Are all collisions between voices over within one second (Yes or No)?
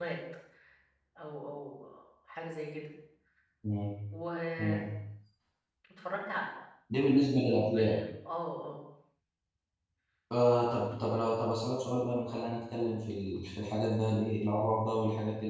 Yes